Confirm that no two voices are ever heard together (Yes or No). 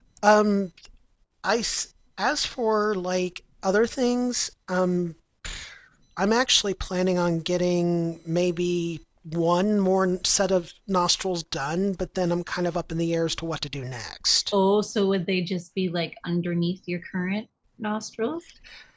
Yes